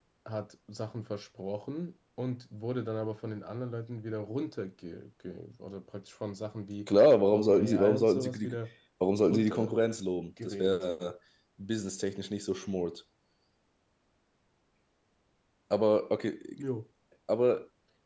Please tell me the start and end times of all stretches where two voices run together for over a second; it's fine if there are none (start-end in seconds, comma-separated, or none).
7.3-8.5